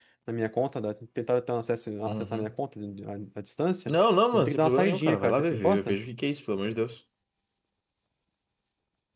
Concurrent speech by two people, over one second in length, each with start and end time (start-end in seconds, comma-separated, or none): 4.3-6.0